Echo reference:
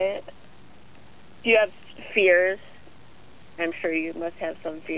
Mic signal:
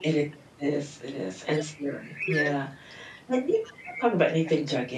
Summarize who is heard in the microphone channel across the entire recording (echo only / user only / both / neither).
both